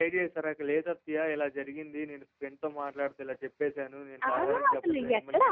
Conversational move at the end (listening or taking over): taking over